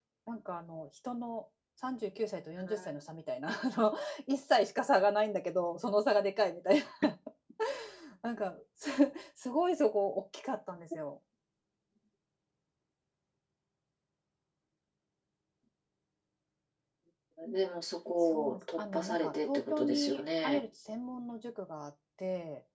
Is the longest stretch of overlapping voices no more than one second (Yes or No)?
No